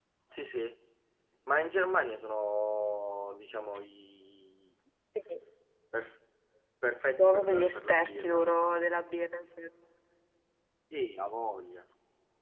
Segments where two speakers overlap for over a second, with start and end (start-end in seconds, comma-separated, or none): 7.2-8.4